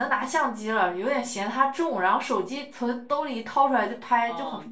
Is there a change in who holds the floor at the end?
Yes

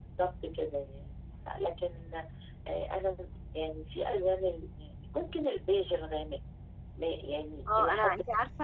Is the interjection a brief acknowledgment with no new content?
No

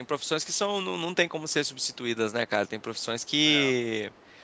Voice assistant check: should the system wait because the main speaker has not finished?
Yes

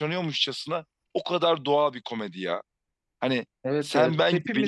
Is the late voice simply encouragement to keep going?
No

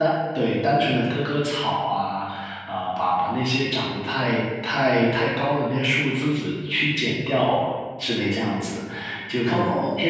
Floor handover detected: No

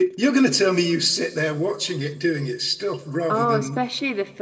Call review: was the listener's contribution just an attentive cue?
No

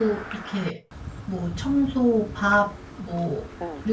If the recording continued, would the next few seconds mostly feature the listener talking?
No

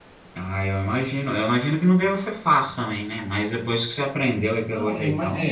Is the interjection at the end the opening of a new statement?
Yes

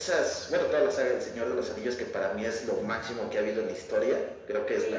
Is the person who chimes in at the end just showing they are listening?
No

